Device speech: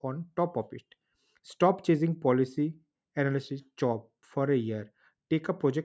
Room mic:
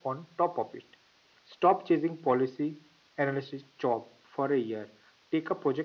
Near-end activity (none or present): none